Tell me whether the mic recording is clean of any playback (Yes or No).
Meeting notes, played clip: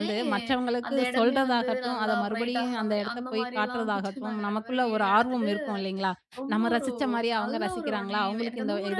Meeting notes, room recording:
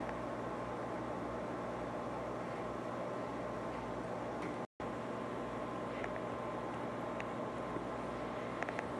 Yes